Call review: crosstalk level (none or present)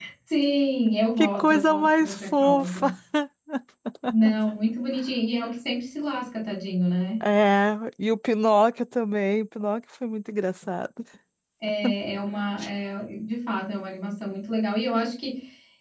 present